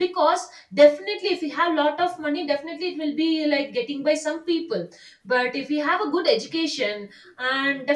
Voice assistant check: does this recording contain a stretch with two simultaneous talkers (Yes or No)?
No